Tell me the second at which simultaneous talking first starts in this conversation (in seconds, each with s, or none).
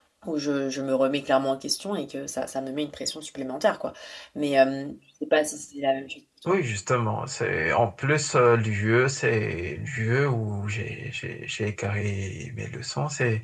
none